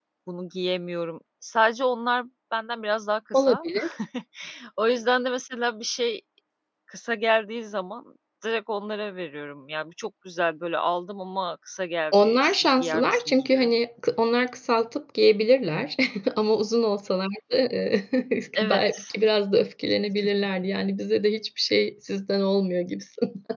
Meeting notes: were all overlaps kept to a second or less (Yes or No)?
No